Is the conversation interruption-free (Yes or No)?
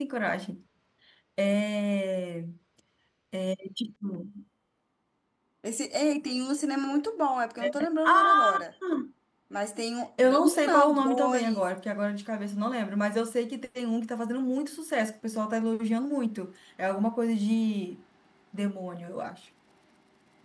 No